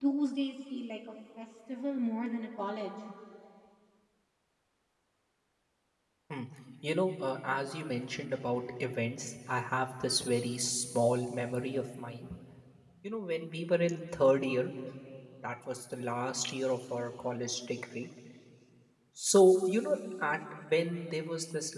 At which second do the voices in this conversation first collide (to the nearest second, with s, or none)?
none